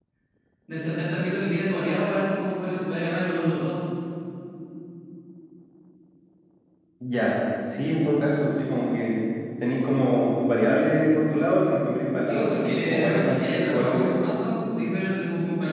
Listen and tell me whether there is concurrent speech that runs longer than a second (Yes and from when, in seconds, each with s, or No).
Yes, from 12.3 s